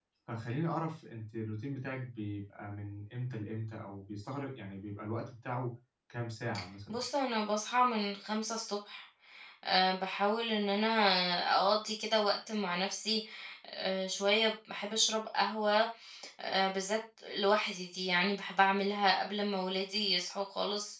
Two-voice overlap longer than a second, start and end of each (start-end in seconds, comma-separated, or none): none